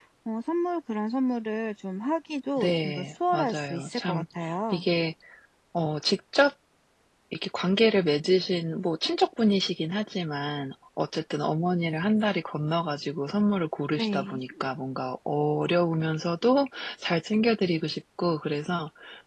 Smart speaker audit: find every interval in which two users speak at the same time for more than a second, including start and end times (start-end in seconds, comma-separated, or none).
2.6-4.2